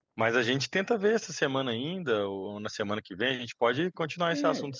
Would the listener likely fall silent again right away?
No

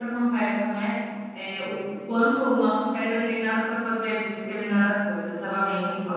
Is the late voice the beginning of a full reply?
No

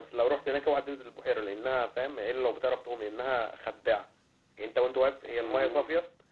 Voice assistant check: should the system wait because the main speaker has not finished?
Yes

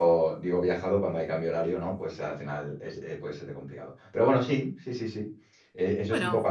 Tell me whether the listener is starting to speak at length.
No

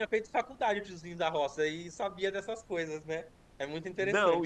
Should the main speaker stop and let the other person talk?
Yes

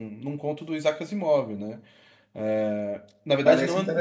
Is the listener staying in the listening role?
Yes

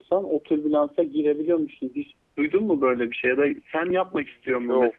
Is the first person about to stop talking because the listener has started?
No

